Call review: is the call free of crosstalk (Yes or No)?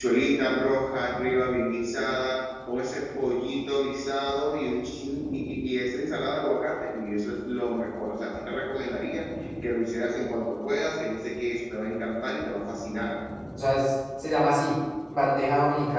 Yes